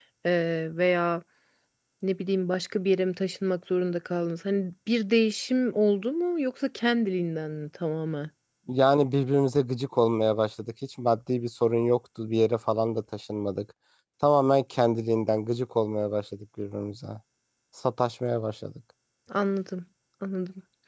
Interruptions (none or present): none